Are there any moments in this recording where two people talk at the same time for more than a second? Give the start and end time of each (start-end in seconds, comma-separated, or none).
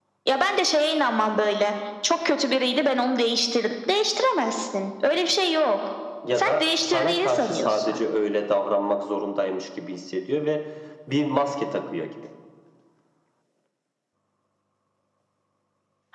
6.3-8.0